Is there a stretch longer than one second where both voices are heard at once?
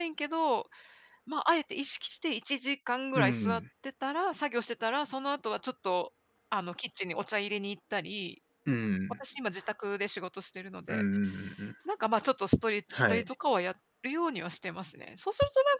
No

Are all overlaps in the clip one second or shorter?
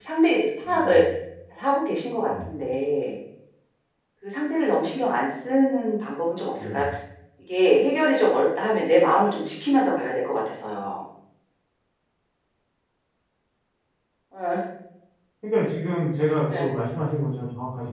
Yes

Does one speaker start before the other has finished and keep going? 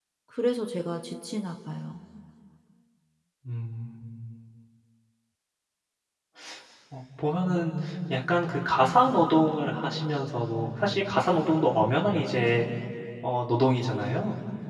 No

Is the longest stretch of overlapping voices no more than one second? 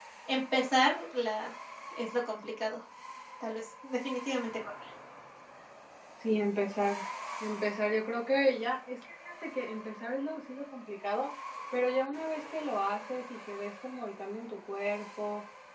Yes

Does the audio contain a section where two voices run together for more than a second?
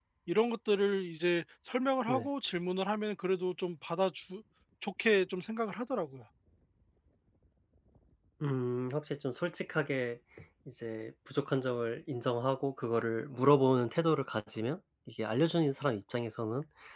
No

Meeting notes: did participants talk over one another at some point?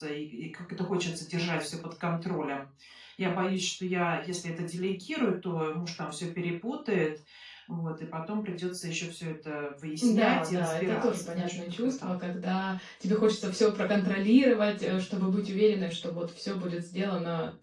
Yes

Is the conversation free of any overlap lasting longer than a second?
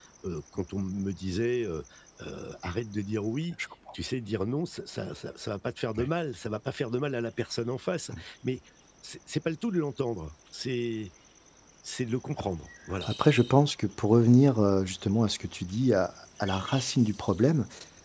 Yes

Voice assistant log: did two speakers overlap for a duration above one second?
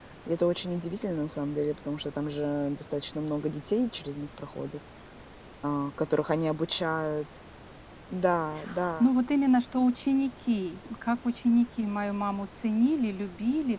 No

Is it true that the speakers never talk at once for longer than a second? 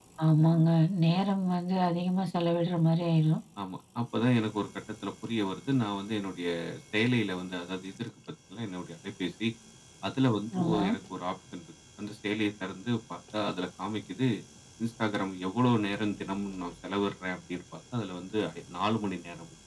Yes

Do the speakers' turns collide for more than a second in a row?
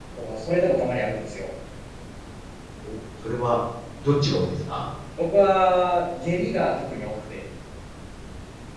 No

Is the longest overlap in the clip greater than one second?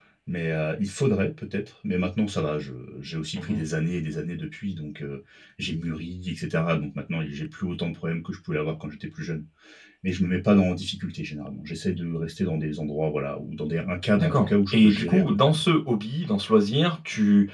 Yes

